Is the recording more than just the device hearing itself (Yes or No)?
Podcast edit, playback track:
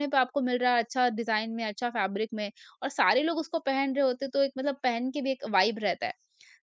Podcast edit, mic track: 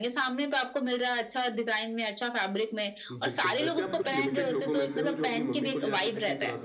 Yes